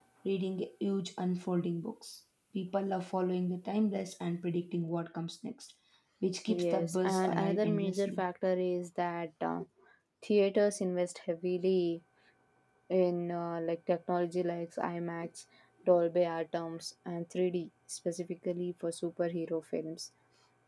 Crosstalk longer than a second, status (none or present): present